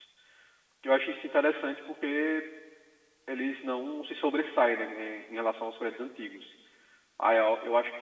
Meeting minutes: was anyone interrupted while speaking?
No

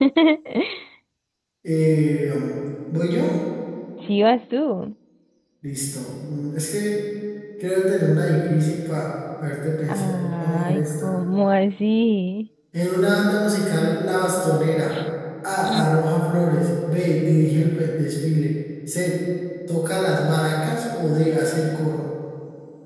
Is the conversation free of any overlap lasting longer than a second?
No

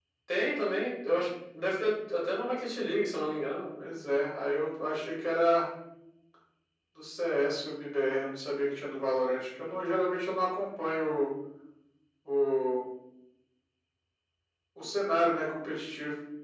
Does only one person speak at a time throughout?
Yes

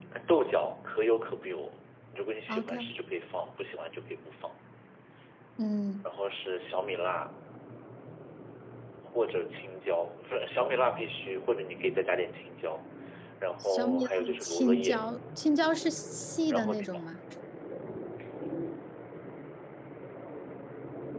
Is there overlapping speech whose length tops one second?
Yes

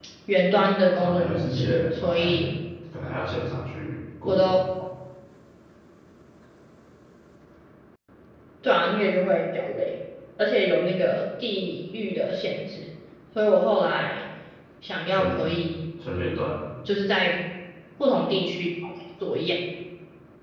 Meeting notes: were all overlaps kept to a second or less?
No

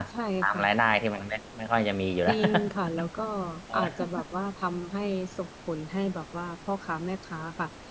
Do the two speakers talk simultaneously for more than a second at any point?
No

